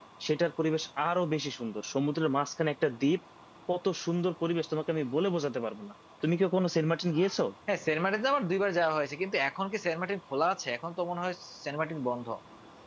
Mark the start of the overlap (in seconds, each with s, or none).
none